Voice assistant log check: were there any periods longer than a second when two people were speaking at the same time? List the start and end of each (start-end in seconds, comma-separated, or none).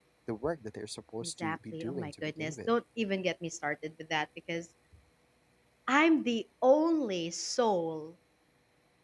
1.2-2.7